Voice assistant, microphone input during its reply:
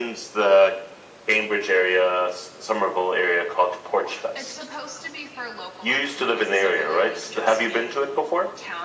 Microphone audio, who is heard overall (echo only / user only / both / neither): both